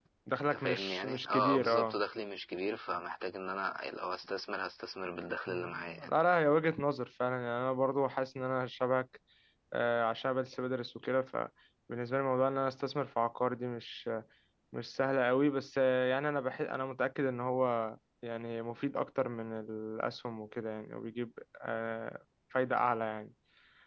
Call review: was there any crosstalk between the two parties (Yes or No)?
Yes